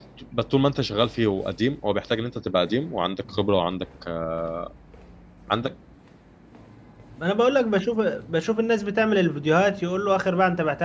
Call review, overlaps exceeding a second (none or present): none